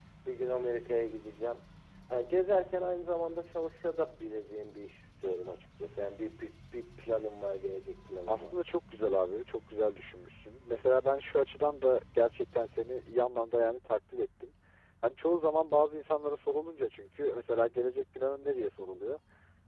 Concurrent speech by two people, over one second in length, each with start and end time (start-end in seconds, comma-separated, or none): none